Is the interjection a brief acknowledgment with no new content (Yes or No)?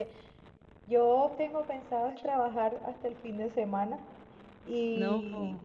Yes